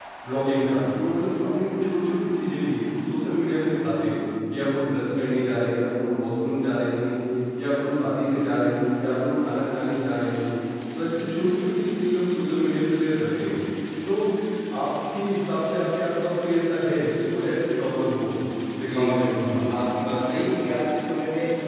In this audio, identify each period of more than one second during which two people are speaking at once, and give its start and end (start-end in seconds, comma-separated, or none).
none